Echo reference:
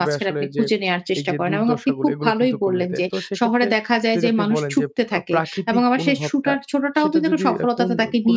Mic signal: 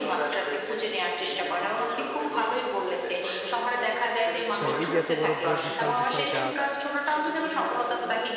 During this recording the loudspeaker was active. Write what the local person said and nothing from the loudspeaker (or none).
হ্যাঁ, এই যে এত বড় ব্র বিশাল, বিশাল গাছ,